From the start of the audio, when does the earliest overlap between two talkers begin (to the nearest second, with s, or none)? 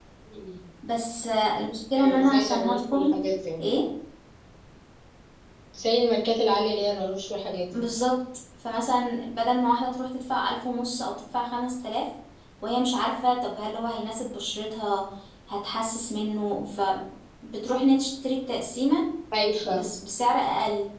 2 s